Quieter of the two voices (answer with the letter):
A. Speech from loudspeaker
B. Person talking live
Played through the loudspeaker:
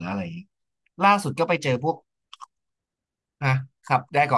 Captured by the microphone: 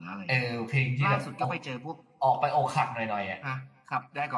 A